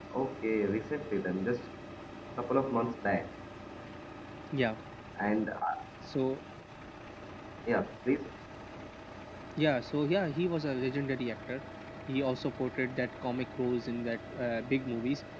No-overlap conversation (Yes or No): Yes